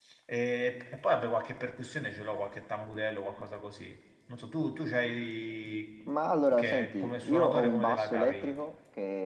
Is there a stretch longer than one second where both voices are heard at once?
Yes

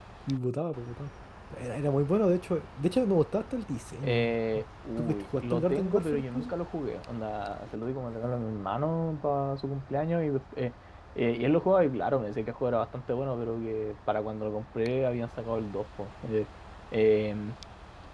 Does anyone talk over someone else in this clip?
Yes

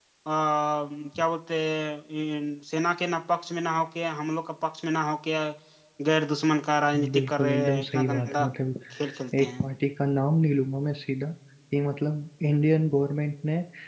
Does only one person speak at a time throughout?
No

